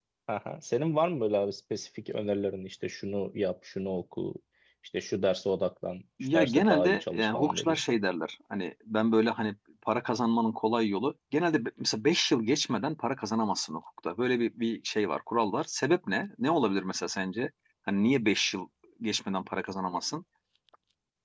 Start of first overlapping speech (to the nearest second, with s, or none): 6 s